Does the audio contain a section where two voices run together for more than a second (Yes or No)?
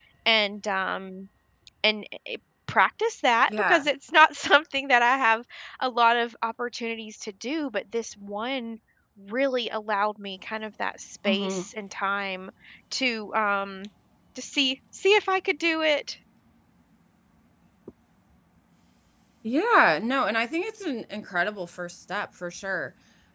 No